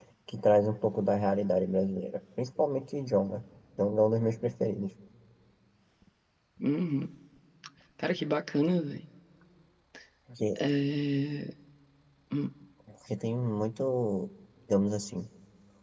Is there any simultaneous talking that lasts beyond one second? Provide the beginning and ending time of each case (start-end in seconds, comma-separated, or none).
none